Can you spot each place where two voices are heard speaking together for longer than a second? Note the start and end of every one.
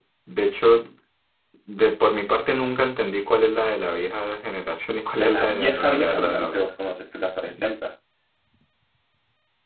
5.2-6.7

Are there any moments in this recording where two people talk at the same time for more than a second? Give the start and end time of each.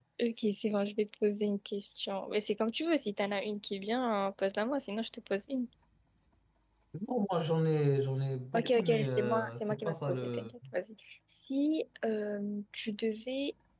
8.6-10.5

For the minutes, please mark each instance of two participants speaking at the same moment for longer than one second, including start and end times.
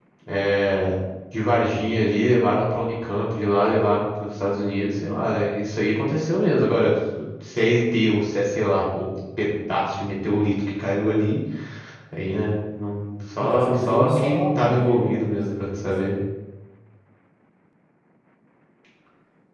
13.4-16.2

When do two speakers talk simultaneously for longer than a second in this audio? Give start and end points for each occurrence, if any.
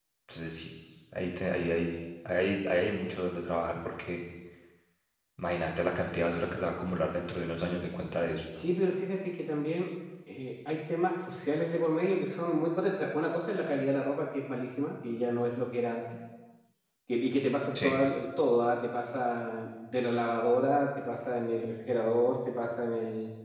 none

